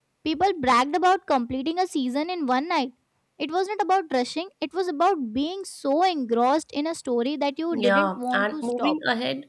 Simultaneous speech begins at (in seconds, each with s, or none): 7.7 s